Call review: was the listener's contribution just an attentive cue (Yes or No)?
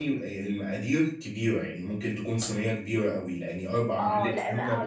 No